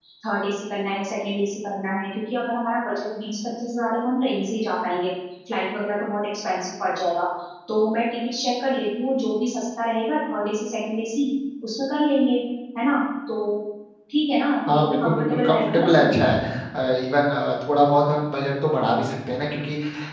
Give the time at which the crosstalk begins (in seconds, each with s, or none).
14.8 s